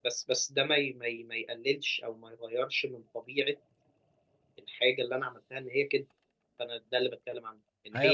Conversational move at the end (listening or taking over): taking over